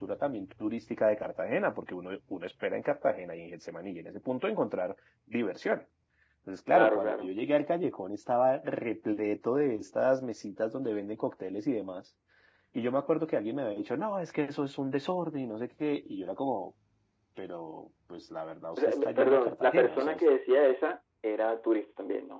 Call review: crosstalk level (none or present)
present